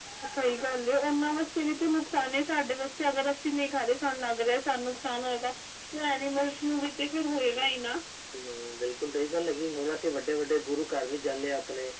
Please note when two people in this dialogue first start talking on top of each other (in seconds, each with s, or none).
none